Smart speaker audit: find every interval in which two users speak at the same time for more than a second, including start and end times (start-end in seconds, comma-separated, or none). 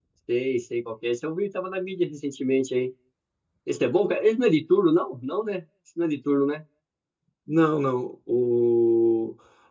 none